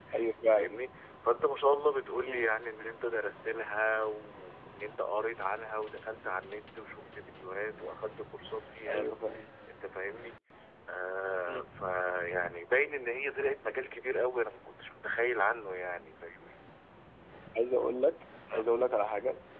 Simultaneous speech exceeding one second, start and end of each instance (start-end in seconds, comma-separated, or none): none